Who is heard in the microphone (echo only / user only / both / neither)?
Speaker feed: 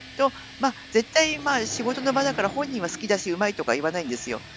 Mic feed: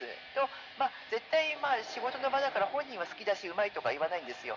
echo only